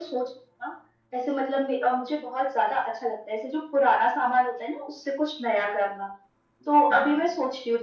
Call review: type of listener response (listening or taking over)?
listening